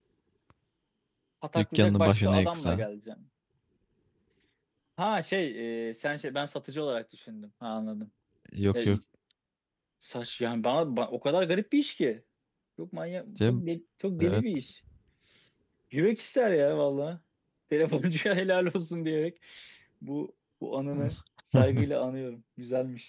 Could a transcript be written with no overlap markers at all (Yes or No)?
No